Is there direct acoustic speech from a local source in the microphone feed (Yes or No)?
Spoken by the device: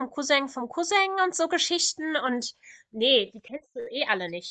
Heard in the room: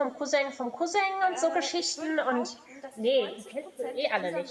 Yes